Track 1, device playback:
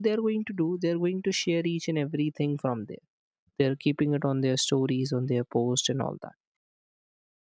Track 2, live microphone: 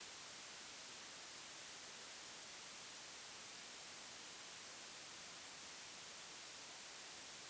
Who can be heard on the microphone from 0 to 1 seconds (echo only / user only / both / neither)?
neither